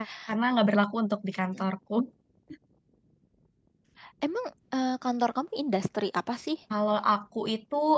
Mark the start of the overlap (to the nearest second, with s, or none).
none